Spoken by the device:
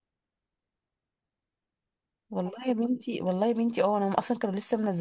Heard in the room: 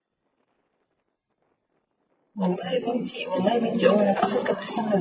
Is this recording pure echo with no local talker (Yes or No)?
Yes